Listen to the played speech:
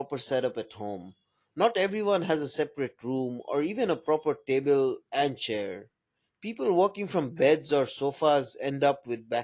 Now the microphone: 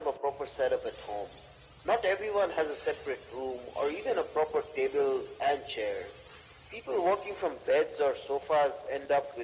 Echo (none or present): present